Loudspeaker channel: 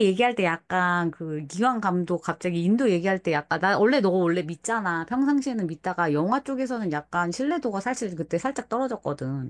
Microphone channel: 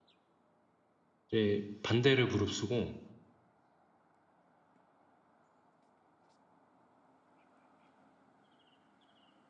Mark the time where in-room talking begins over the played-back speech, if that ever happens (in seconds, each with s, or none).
1.3 s